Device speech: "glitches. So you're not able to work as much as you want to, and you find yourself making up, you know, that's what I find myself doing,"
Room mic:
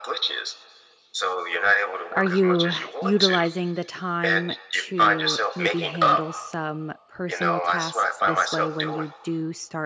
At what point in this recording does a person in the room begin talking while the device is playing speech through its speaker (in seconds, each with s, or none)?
2.2 s